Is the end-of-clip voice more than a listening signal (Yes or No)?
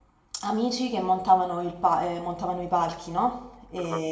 No